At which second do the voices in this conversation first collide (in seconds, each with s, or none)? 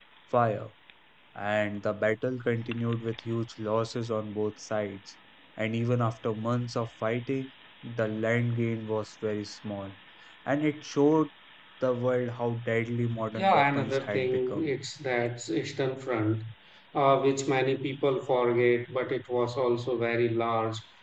13.3 s